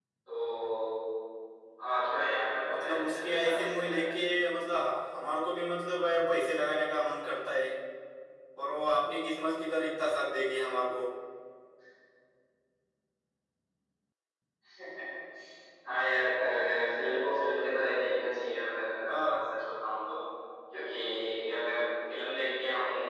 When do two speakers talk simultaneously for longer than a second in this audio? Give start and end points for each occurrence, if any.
2.6-4.1

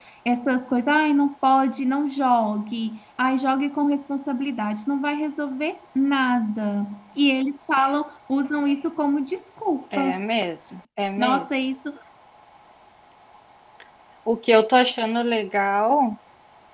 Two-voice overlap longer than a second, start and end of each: none

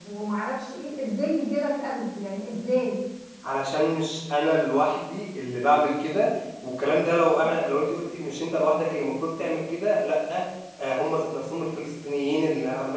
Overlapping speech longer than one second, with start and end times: none

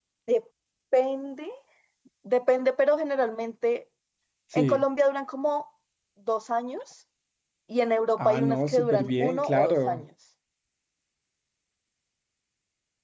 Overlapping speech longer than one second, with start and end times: 8.2-10.0

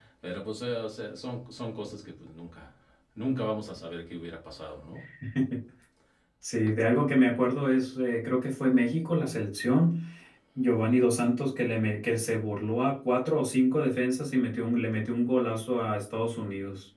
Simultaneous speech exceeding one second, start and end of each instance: none

